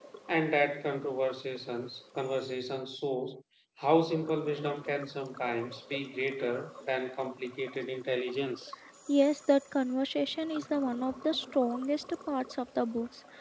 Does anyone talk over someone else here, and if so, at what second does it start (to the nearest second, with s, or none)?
none